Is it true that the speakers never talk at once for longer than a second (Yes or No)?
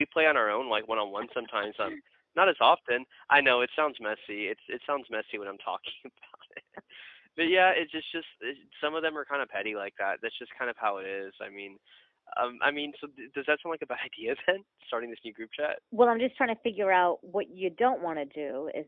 Yes